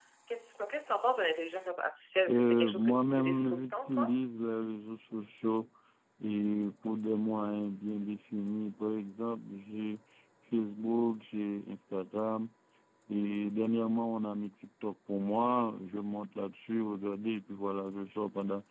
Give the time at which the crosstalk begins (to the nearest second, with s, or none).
2 s